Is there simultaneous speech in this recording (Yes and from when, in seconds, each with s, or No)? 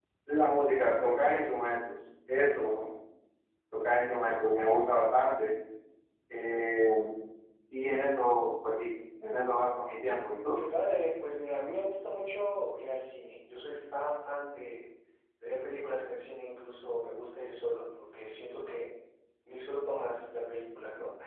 No